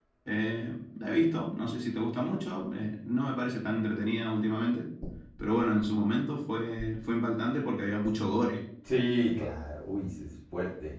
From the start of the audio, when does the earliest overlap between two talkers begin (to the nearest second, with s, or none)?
none